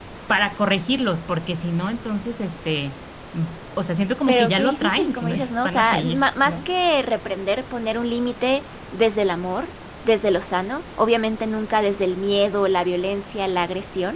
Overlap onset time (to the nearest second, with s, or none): 4 s